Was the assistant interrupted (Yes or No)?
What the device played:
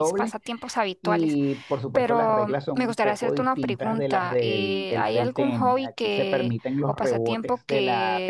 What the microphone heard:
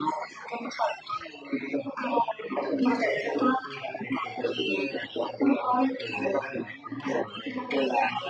Yes